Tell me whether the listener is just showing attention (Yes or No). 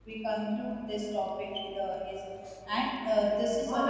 No